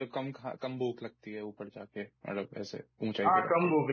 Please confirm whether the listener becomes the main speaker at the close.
Yes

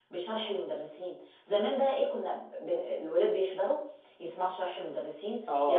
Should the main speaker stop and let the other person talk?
No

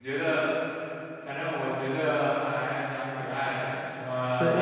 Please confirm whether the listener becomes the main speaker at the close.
Yes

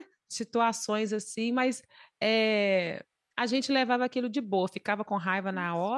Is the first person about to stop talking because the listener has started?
No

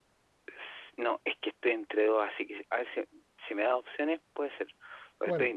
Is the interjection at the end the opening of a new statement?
No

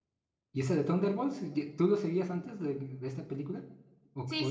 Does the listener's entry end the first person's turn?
Yes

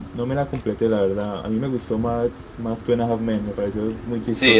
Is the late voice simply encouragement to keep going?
No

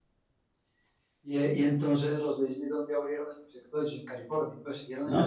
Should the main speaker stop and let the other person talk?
Yes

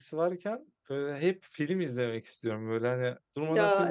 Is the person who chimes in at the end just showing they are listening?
Yes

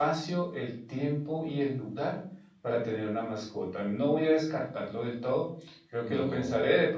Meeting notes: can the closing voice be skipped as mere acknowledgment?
Yes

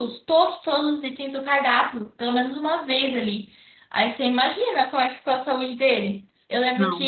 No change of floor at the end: Yes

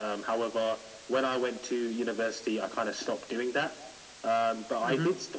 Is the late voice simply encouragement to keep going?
Yes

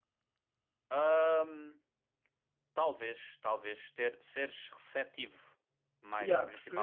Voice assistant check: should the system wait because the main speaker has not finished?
No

